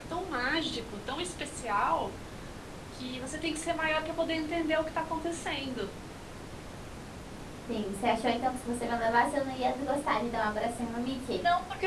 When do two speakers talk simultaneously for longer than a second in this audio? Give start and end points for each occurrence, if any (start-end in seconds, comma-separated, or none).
none